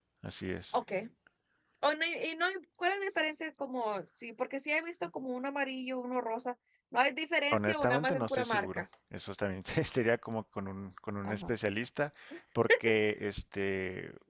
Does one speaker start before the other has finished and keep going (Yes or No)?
Yes